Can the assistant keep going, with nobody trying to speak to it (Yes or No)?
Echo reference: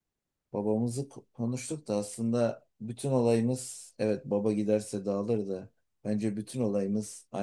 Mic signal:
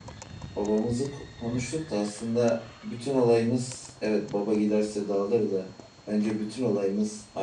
Yes